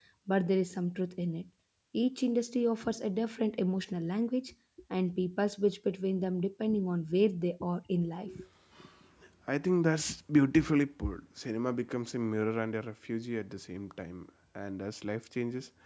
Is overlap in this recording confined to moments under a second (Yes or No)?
Yes